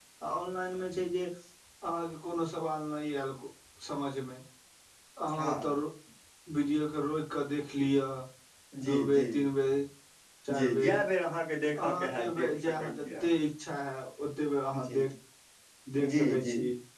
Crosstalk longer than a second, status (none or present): present